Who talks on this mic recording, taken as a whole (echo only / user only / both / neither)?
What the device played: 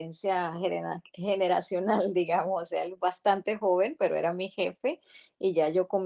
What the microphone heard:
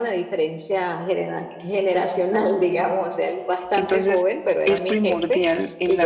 both